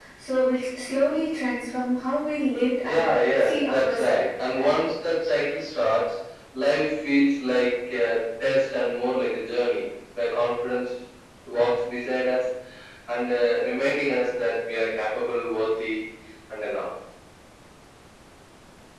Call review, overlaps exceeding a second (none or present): present